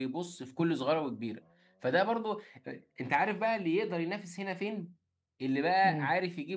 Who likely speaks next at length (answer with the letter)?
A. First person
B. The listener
A